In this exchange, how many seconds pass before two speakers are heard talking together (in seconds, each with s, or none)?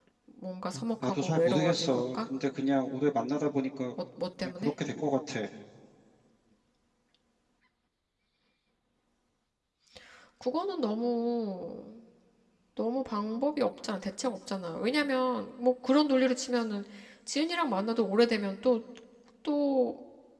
1.0 s